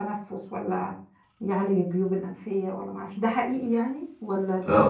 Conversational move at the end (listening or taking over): taking over